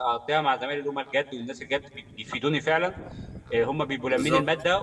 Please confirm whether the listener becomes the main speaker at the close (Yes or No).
No